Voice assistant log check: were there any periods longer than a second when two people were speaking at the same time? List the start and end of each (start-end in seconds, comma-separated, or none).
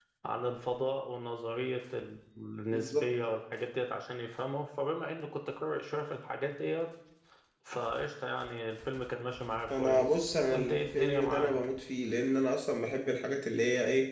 9.7-11.5